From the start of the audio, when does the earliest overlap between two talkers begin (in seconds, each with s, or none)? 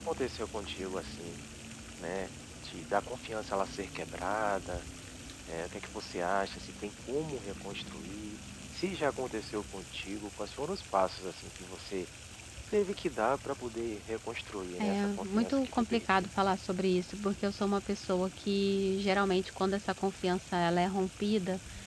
14.8 s